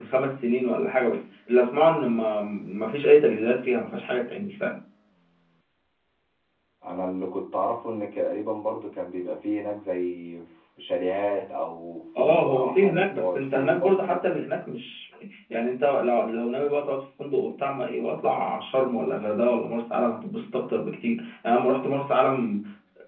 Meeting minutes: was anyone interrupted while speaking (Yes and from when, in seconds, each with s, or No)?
Yes, from 12.2 s